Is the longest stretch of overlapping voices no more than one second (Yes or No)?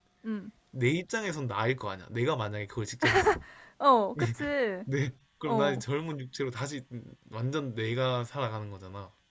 Yes